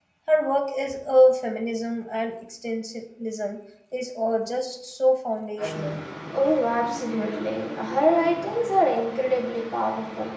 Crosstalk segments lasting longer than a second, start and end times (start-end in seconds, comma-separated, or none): none